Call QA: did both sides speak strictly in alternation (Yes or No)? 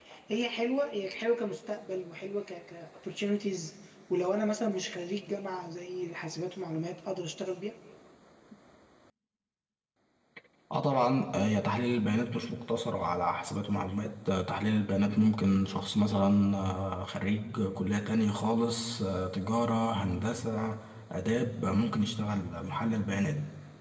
Yes